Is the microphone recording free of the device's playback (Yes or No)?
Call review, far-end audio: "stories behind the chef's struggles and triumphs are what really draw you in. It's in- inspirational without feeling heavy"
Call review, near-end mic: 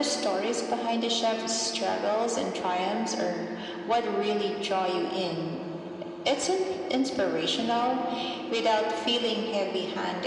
No